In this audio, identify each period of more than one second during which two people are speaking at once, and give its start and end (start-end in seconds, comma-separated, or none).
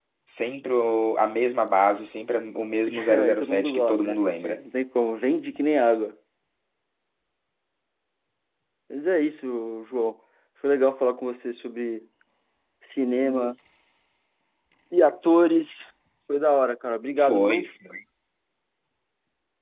2.9-4.6